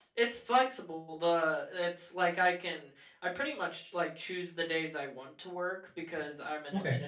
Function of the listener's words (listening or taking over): listening